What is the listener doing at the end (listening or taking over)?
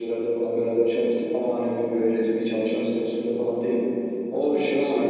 listening